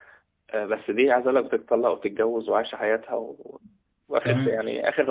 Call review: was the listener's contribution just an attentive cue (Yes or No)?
Yes